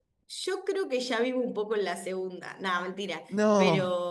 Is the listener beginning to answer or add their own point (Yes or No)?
No